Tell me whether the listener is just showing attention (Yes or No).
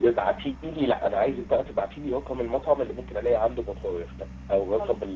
Yes